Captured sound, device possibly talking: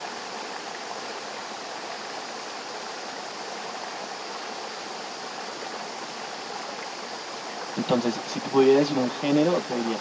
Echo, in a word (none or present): none